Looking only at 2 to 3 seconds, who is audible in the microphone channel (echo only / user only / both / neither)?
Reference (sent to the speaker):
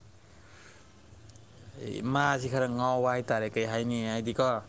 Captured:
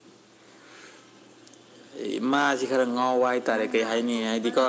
echo only